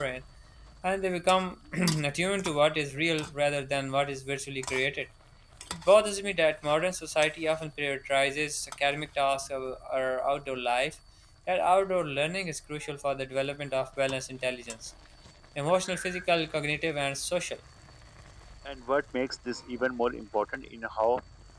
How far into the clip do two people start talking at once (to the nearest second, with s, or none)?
none